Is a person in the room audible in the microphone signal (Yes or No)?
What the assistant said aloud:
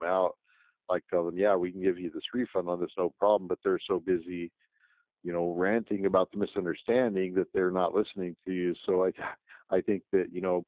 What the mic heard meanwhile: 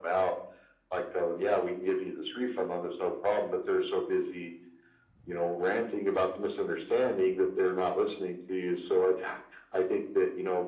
No